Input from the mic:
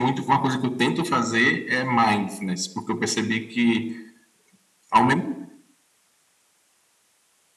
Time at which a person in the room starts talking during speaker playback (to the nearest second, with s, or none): none